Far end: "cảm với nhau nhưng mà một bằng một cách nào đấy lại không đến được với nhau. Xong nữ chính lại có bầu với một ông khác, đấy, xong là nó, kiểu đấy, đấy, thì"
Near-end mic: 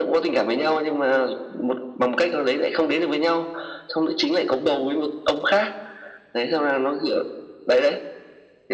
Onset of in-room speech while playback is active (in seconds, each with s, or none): none